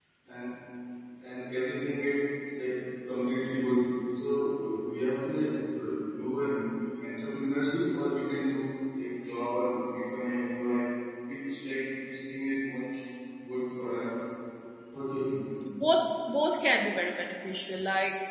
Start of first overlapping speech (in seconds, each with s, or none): none